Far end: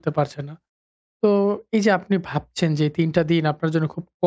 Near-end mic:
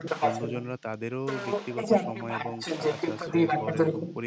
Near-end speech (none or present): present